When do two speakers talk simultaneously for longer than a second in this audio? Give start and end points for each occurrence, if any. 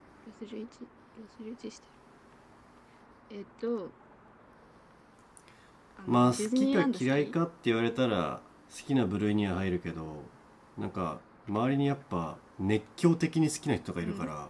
6.1-7.3

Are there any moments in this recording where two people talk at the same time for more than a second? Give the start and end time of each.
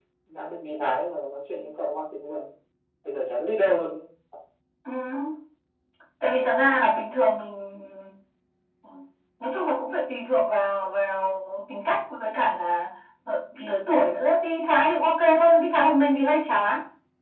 none

